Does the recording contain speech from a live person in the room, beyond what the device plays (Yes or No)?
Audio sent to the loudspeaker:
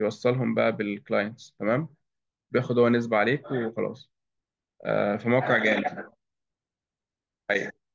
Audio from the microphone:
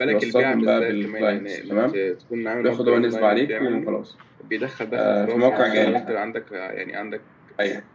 Yes